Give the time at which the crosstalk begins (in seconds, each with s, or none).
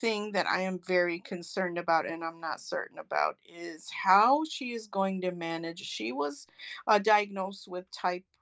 none